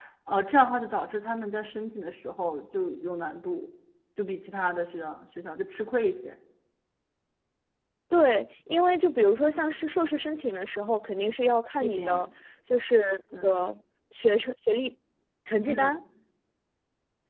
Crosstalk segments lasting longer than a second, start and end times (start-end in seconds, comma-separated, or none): none